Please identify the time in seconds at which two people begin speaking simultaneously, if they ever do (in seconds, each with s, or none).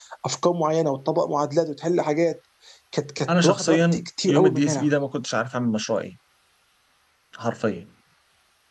3.3 s